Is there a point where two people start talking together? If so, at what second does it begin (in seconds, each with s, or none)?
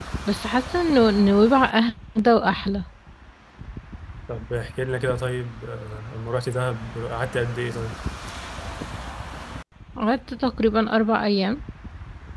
none